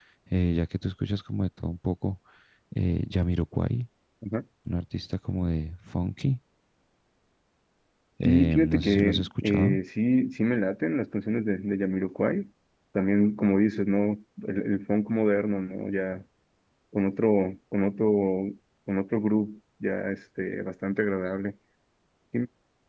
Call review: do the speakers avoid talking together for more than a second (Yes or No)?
No